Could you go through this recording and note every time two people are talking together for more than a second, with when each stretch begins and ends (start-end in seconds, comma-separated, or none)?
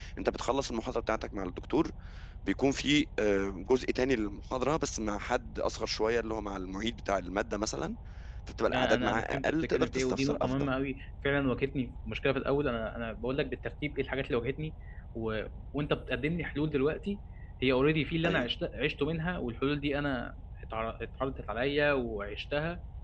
8.7-10.7